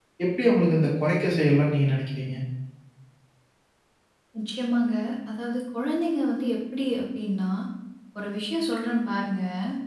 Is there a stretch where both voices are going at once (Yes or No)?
No